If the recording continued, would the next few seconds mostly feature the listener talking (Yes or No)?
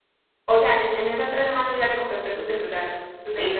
Yes